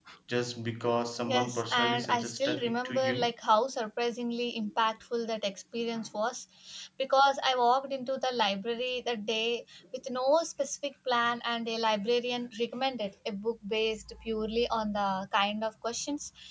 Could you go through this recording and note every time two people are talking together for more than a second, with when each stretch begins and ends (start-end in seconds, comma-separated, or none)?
1.3-3.3